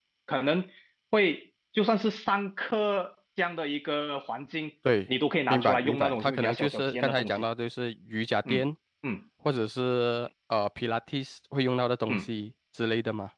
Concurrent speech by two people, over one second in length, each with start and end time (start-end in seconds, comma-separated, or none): 5.5-7.4